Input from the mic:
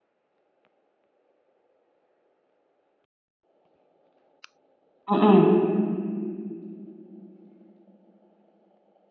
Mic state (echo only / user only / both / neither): user only